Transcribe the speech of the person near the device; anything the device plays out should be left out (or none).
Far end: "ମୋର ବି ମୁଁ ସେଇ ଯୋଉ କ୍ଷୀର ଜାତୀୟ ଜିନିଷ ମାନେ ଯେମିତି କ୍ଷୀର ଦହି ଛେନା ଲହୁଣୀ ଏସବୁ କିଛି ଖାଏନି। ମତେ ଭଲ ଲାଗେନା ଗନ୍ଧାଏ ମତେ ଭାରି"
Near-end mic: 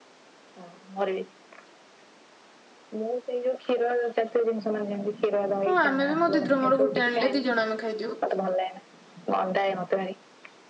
ହଁ ଆମେ ବି ମୋ ଦିଦି ର ମୋର ଗୋଟେ ଆଣିଲେ ଦି ଜଣ ଆମେ ଖାଇଦଉ।